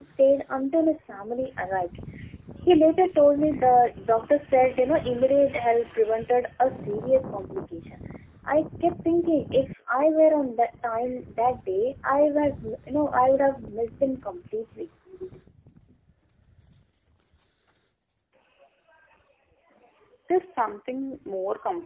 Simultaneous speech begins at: none

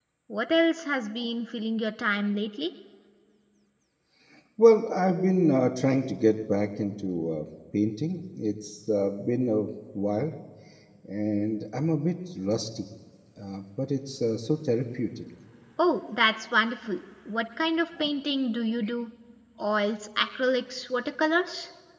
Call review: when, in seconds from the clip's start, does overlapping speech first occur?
none

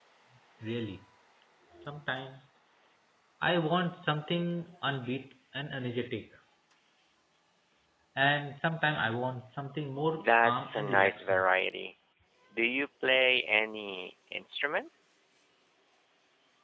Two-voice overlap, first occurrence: 10.1 s

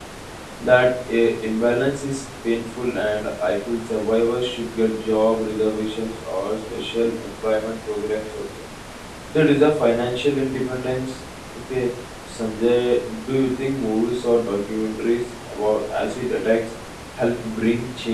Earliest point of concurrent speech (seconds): none

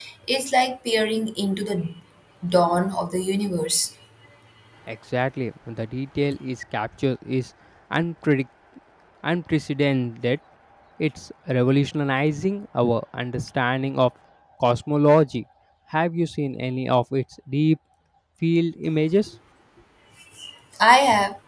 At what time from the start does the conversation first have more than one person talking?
none

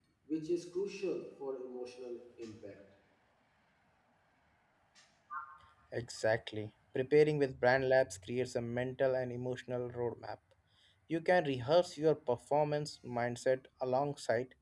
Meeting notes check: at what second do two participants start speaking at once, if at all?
none

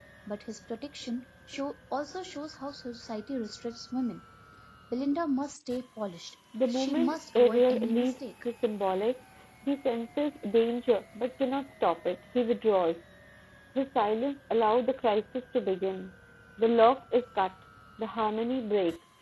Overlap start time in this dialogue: 6.5 s

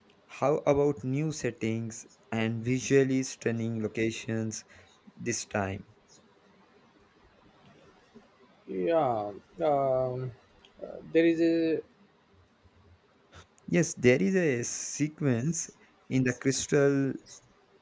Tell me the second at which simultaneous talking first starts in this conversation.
none

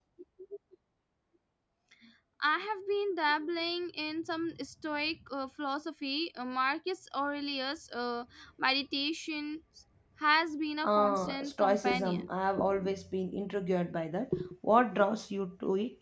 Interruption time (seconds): 10.8 s

